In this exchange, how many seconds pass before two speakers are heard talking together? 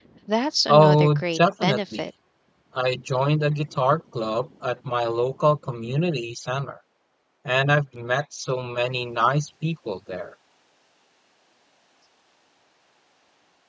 1 s

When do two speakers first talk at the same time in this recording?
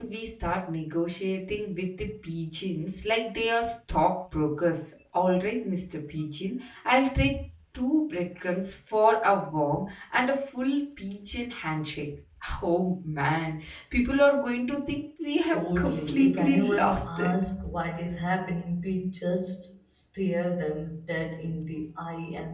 16 s

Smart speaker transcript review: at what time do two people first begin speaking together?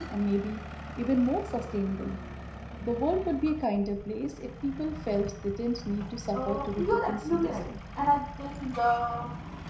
6 s

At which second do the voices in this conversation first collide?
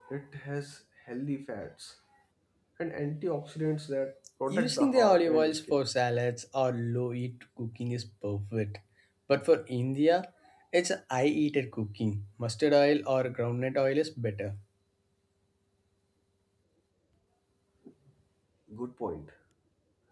5 s

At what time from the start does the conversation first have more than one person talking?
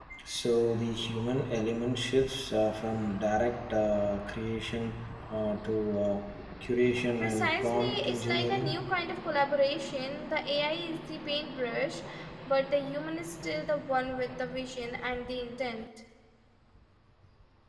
7 s

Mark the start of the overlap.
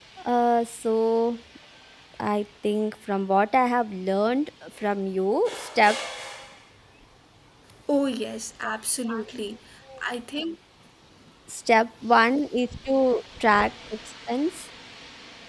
none

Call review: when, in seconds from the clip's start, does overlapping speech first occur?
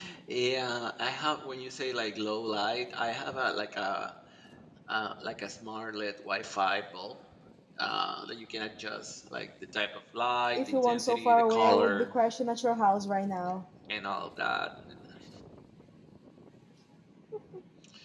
11 s

